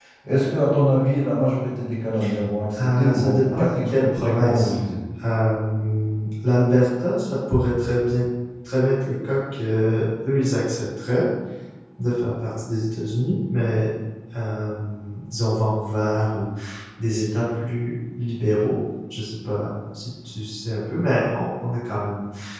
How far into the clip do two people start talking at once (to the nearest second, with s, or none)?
3 s